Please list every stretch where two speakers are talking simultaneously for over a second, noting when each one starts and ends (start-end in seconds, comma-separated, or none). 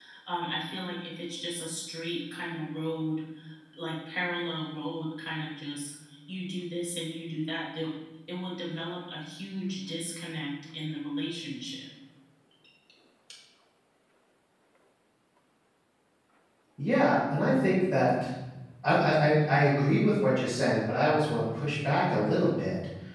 none